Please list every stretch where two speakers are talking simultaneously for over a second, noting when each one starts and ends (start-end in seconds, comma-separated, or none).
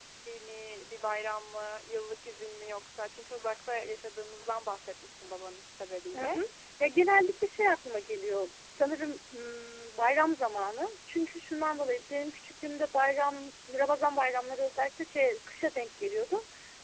none